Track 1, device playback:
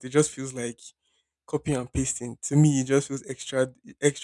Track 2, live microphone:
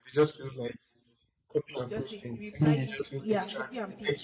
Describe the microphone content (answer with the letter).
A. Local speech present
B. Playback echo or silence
A